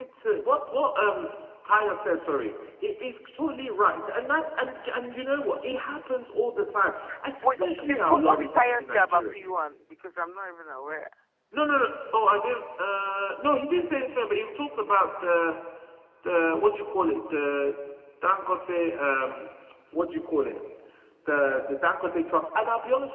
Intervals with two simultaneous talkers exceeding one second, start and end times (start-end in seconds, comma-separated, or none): 7.4-9.3